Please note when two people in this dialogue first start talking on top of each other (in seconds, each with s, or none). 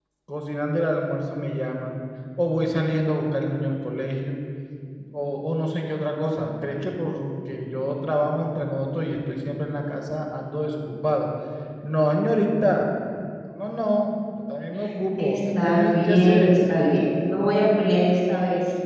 15.2 s